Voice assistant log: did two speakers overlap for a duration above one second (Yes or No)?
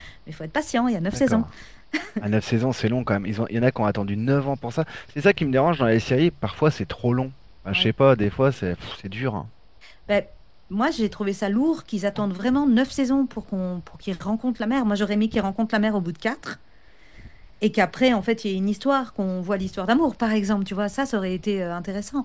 No